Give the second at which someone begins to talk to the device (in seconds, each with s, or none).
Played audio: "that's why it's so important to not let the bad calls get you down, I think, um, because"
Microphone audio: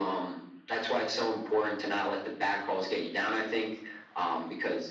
none